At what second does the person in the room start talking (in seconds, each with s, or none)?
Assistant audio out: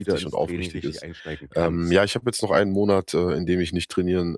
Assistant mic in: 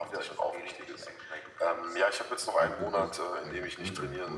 2.3 s